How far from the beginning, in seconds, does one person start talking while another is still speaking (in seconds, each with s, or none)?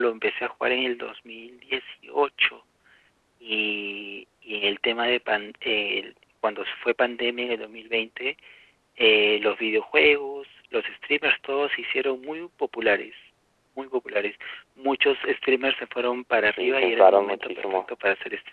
16.5 s